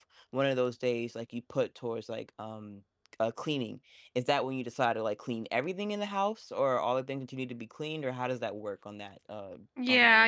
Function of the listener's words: taking over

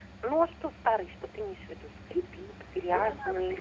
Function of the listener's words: taking over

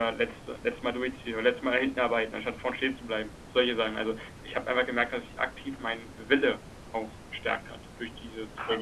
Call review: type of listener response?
taking over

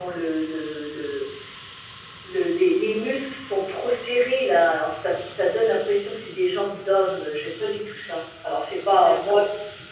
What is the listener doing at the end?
taking over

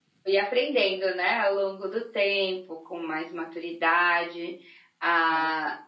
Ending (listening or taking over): listening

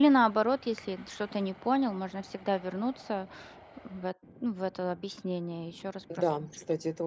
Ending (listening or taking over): taking over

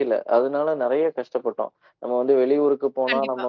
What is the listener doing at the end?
listening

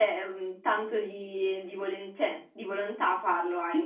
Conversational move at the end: taking over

